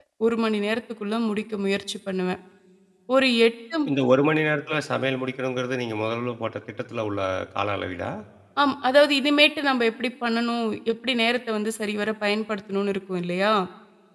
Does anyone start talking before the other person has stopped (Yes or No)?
No